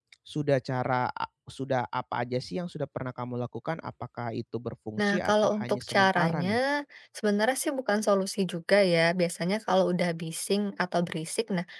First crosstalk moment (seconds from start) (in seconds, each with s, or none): 5.0 s